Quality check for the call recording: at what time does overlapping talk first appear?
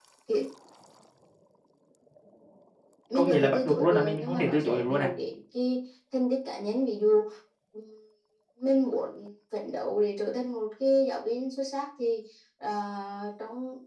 3.1 s

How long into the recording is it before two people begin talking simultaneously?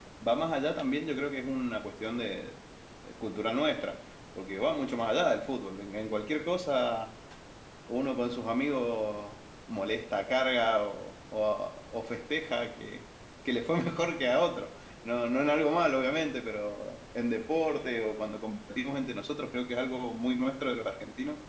none

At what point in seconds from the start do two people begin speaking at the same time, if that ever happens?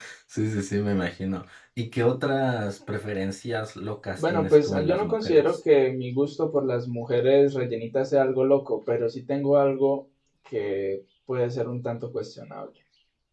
4.2 s

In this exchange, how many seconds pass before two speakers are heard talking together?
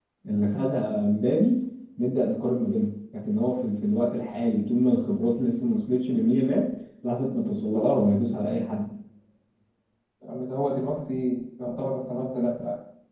none

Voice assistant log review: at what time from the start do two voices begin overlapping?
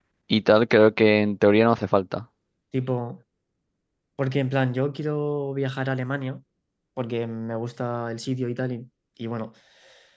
none

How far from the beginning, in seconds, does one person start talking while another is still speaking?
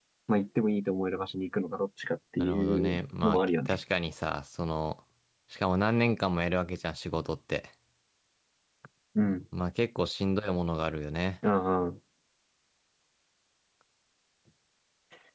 2.4 s

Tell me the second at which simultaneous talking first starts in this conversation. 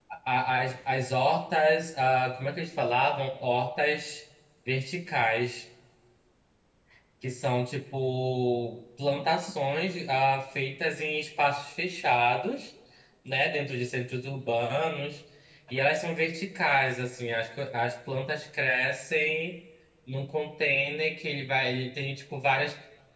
none

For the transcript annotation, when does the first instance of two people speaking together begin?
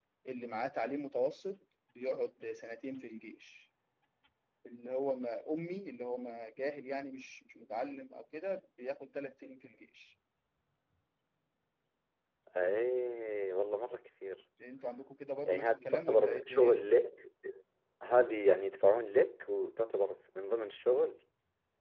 15.5 s

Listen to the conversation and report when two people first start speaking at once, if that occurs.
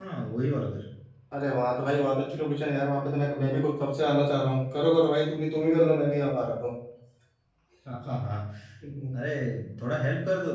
none

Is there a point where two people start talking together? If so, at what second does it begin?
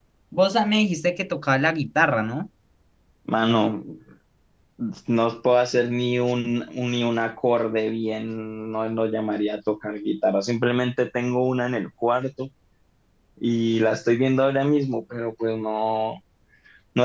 none

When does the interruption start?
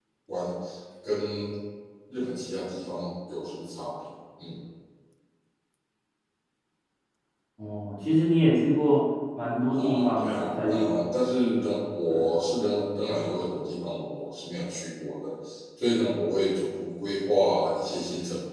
9.7 s

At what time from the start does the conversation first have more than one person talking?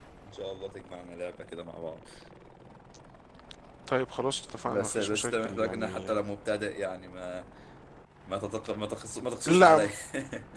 4.7 s

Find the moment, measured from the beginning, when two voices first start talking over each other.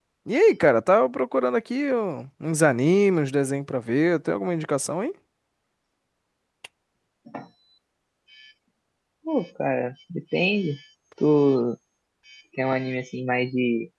none

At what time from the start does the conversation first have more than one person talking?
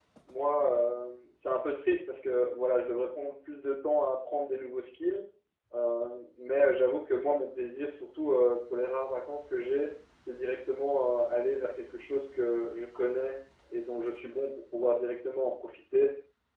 none

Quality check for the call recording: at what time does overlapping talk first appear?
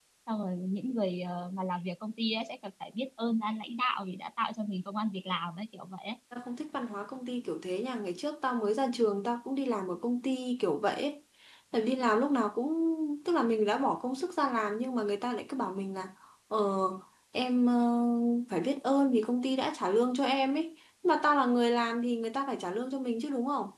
none

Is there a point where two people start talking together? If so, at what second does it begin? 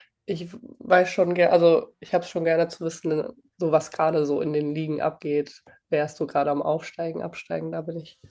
none

